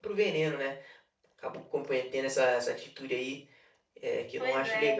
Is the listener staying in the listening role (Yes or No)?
No